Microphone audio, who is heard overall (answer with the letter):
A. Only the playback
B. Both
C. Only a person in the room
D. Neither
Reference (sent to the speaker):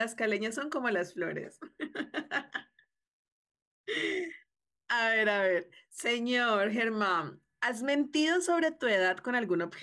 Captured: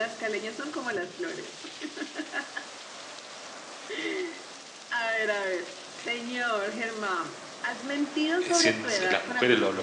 B